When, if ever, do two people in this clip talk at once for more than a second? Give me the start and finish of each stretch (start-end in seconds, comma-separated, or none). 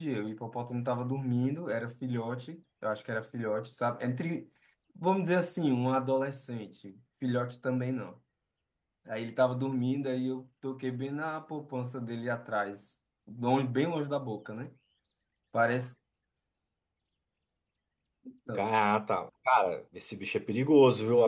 none